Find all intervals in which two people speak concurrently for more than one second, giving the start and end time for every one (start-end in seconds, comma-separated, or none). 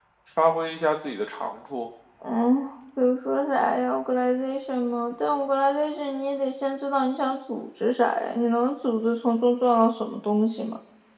none